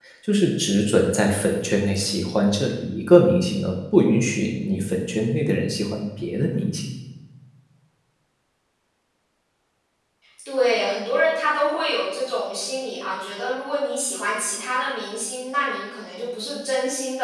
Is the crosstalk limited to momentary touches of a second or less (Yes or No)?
Yes